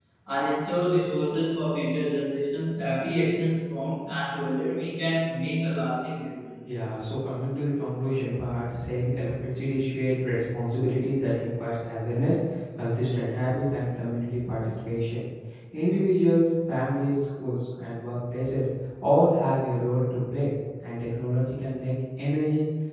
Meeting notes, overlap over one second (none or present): none